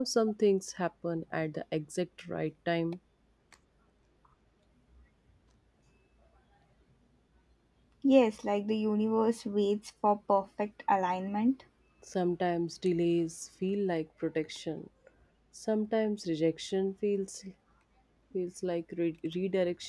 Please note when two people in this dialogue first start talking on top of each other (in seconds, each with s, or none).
none